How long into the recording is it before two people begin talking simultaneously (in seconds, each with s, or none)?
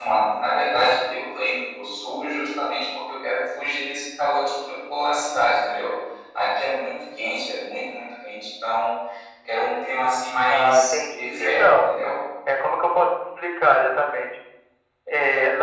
10.5 s